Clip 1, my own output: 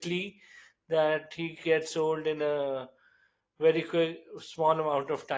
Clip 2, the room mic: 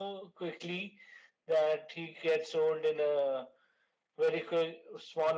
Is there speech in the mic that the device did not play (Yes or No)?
No